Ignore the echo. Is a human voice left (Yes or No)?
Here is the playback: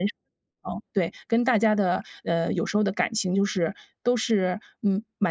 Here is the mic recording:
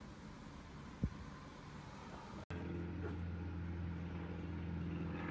No